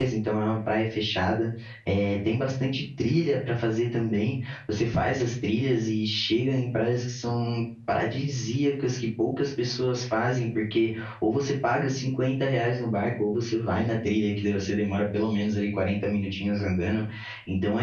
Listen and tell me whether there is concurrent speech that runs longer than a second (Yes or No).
No